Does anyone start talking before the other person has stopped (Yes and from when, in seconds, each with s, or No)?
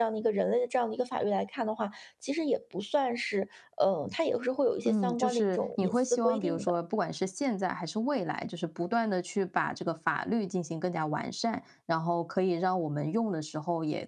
Yes, from 4.8 s